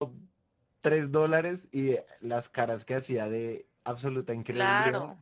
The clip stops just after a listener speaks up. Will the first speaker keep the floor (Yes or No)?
No